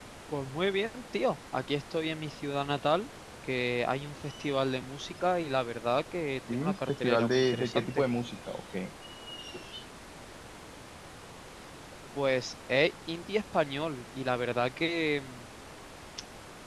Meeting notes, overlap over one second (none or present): present